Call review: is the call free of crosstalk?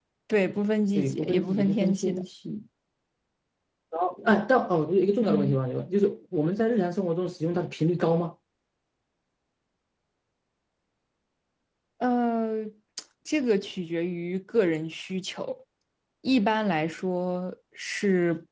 No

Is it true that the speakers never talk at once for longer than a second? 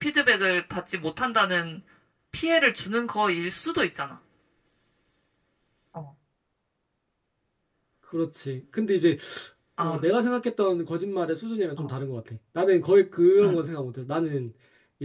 Yes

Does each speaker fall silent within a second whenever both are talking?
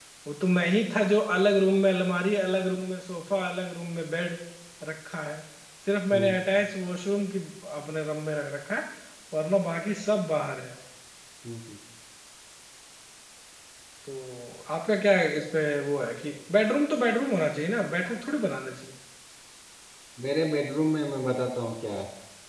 Yes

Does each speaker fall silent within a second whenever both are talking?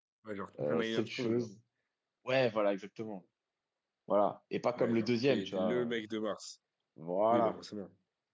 No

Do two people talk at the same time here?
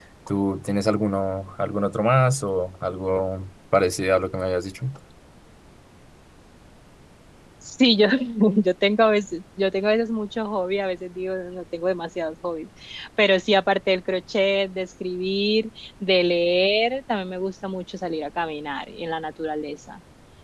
No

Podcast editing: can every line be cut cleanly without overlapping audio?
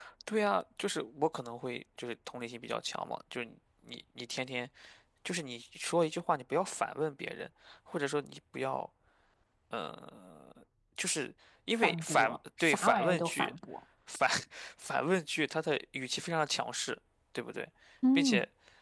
No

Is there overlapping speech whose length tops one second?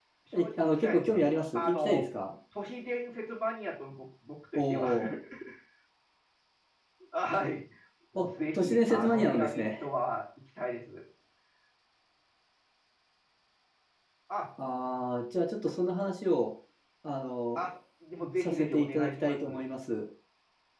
Yes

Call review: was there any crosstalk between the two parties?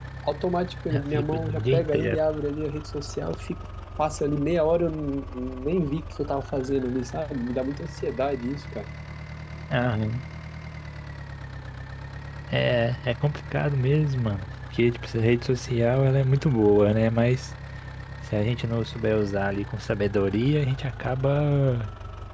Yes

